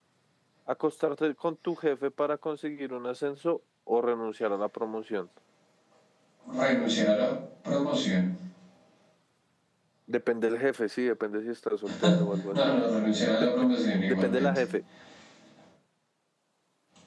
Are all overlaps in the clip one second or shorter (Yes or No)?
Yes